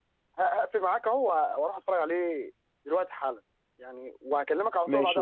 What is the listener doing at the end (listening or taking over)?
taking over